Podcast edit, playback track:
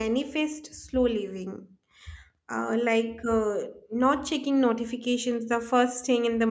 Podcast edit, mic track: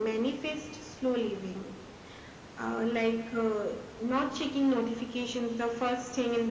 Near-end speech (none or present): none